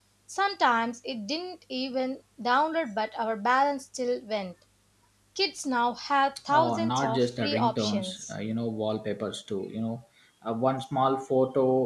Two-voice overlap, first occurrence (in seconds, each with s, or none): 6.5 s